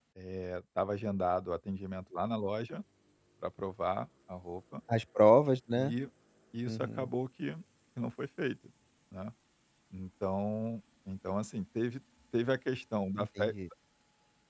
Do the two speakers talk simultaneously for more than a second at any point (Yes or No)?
No